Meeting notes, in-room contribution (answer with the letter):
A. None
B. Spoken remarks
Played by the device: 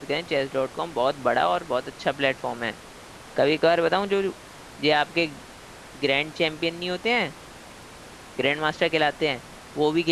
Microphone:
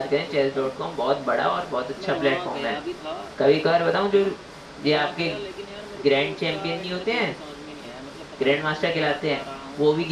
B